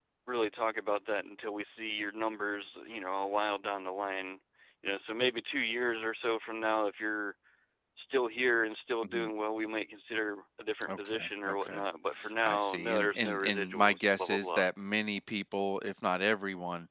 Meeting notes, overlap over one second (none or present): present